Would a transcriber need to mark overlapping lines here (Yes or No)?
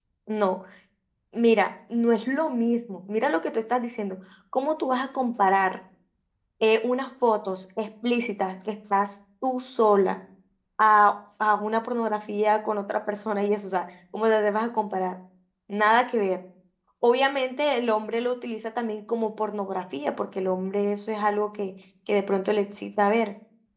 No